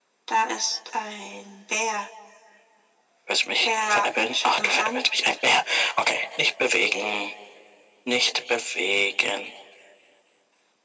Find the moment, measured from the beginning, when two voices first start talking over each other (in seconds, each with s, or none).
3.6 s